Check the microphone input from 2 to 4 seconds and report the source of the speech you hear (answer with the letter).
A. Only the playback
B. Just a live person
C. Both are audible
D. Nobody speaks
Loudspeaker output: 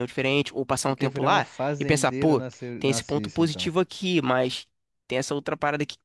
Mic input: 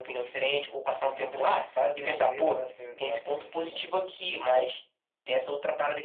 A